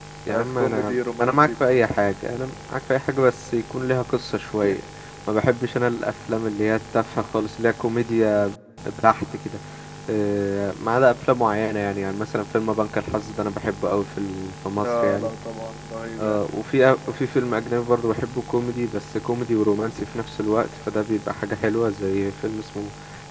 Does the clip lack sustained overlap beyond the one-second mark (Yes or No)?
No